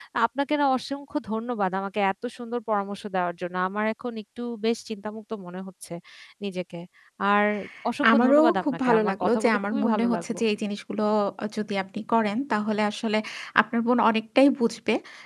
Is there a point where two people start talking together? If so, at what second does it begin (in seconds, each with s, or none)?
8.1 s